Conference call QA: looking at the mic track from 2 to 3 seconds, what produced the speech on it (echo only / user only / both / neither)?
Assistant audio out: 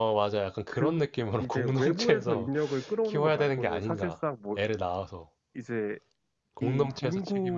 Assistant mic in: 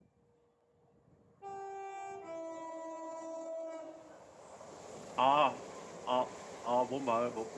neither